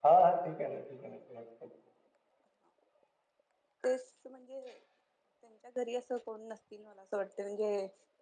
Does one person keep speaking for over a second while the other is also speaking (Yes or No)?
No